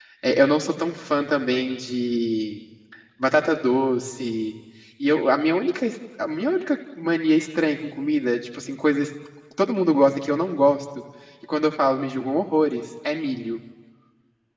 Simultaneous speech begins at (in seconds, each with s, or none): none